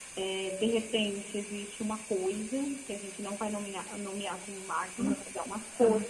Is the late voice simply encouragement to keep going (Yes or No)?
Yes